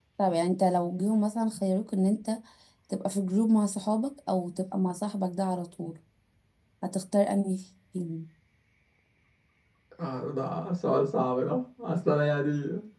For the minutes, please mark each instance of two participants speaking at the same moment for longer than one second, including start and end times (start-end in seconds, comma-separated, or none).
none